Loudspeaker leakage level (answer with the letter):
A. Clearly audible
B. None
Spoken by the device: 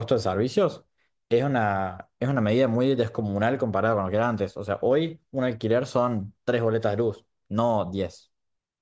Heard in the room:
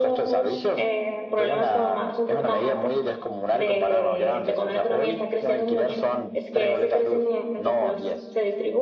A